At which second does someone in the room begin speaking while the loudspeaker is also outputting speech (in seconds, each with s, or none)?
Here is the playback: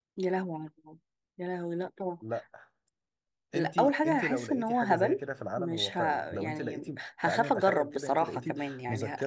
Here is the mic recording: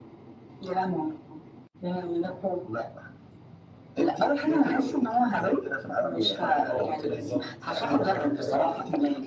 6.5 s